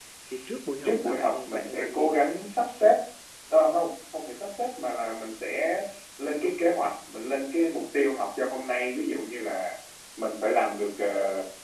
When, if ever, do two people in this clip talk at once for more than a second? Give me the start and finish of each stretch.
0.8-2.2

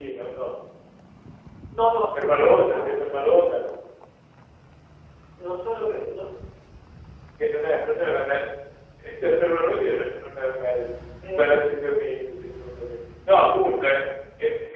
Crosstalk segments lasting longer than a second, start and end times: 2.1-3.6

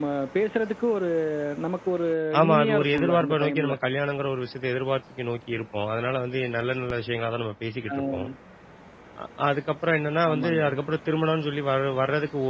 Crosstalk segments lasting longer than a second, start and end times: 2.4-3.8

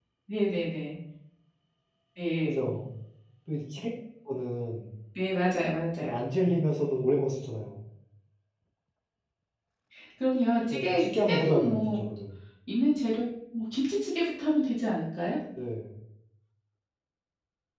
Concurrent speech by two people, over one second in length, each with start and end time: 10.7-12.0

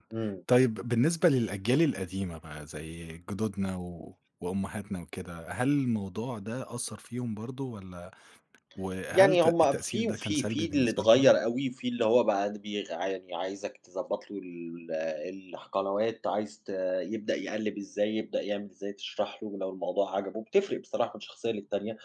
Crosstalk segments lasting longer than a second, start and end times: 9.1-11.3

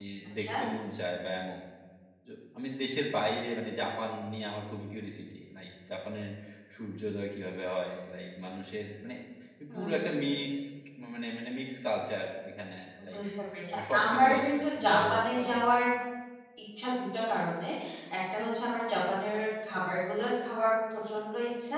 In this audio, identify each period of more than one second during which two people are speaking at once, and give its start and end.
13.7-15.6

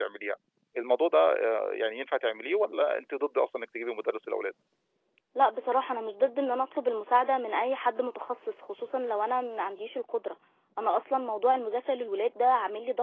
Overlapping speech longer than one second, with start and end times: none

